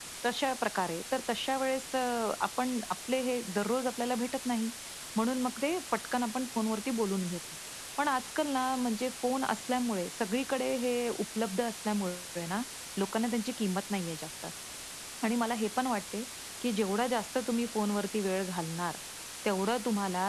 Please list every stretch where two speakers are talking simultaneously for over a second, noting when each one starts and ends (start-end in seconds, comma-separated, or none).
none